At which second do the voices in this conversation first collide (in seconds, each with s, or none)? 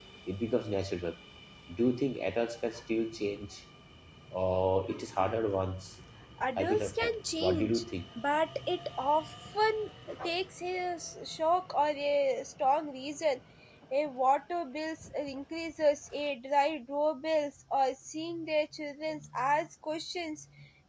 6.6 s